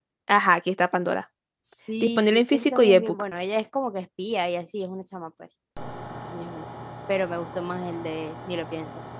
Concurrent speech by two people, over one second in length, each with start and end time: 2.0-3.2

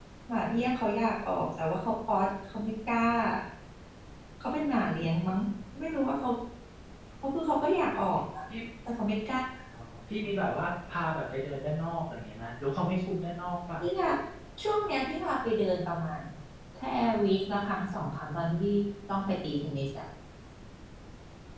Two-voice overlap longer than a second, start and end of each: none

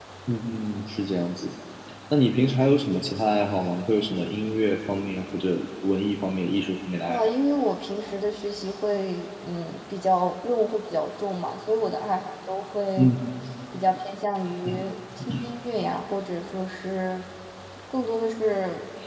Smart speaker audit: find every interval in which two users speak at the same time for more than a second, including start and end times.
none

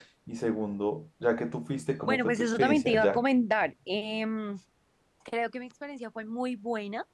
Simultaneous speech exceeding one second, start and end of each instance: 2.0-3.2

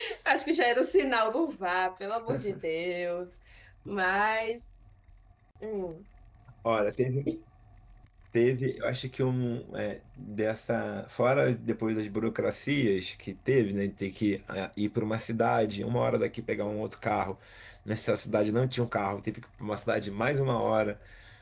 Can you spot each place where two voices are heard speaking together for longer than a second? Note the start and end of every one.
none

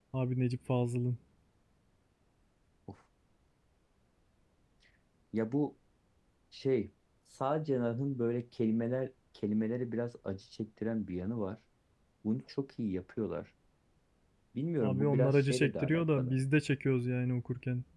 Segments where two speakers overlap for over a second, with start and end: 14.8-16.4

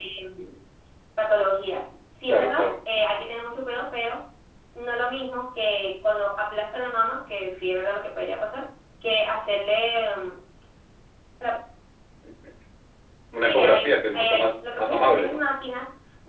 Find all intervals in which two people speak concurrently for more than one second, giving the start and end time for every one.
13.4-15.4

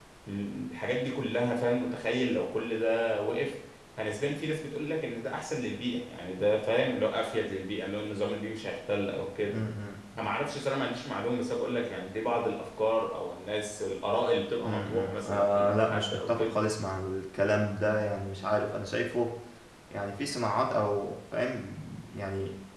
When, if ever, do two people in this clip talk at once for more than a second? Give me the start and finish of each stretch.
14.6-16.6

